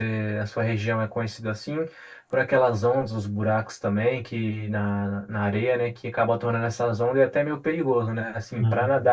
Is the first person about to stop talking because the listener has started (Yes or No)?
No